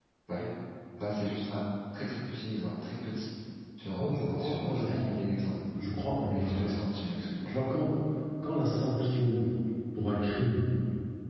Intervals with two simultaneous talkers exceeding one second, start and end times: 4.0-5.2

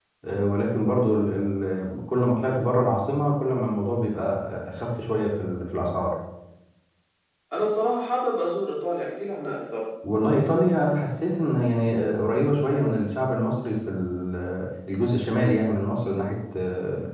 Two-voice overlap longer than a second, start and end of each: none

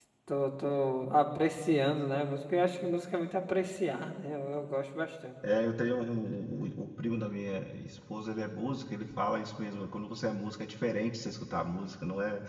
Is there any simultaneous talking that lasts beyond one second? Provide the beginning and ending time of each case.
none

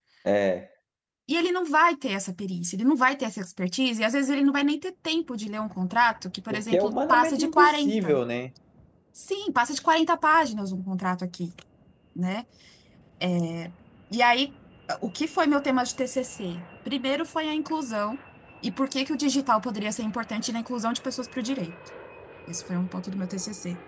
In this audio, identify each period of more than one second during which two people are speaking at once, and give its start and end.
6.5-8.2

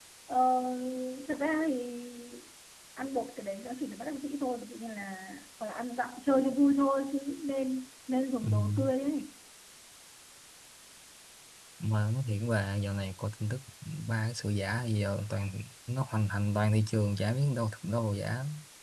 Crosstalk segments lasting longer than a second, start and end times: none

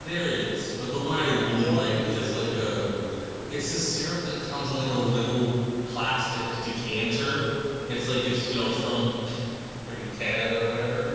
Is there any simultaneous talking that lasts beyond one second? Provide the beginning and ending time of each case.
1.2-3.0

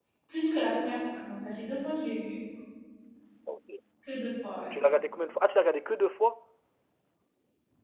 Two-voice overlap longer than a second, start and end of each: none

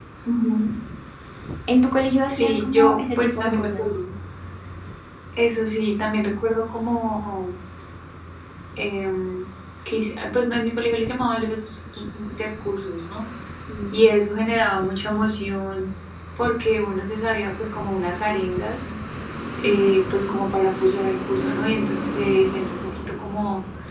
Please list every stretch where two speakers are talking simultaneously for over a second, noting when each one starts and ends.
2.3-3.9

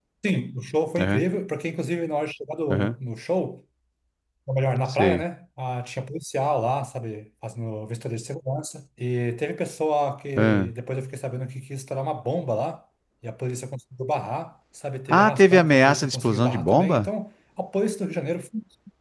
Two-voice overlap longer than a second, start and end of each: 15.1-17.1

